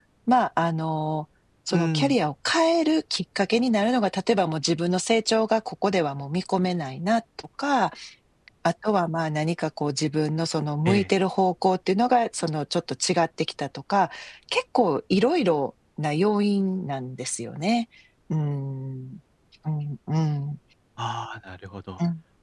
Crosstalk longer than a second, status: none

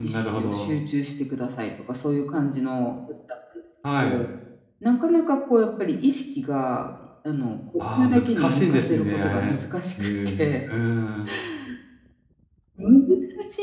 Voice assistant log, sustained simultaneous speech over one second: present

